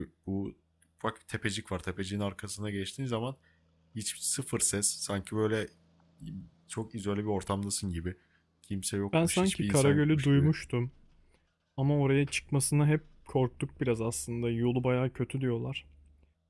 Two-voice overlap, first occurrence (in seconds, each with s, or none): 9.2 s